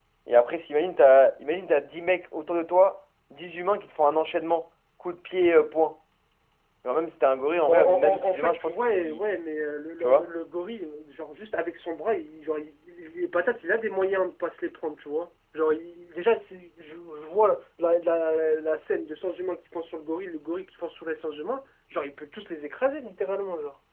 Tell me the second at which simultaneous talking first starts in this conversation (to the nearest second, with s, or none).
8 s